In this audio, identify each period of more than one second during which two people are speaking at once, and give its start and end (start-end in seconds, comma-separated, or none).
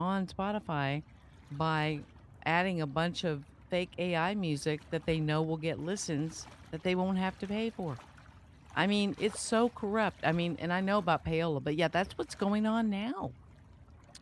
none